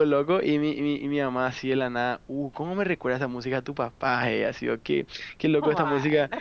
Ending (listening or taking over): listening